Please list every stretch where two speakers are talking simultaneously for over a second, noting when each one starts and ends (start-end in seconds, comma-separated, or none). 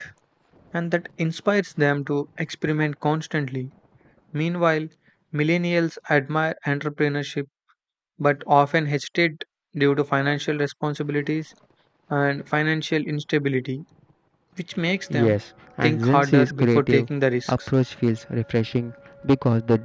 15.8-17.1